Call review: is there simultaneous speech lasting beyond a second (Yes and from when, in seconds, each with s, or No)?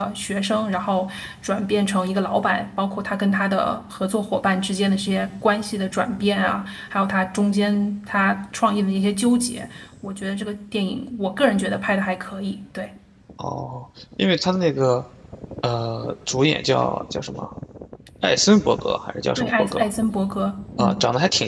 No